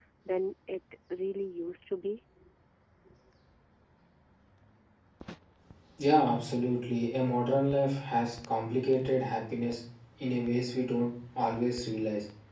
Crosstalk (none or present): none